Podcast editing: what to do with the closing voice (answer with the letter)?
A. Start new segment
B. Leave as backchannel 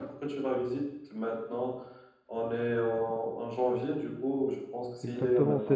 A